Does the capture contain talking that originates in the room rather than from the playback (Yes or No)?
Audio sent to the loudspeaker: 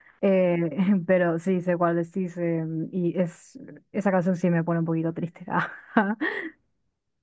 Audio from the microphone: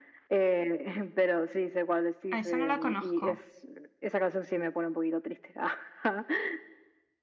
Yes